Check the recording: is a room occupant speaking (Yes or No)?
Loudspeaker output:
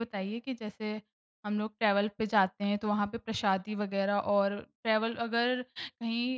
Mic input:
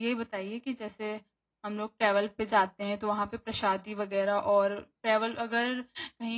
No